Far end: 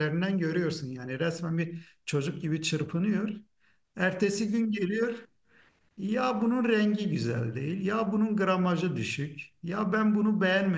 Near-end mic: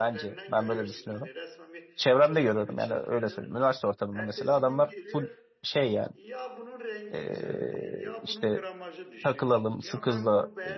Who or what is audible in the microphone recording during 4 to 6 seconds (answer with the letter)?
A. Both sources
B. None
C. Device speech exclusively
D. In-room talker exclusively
A